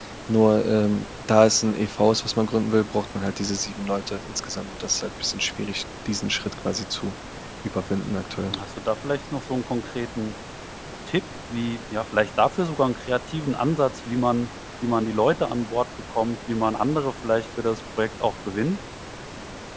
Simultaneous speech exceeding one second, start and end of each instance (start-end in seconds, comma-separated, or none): none